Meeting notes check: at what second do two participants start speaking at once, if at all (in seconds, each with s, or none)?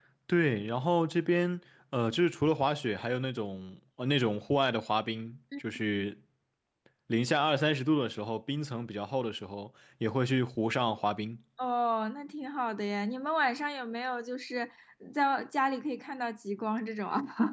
none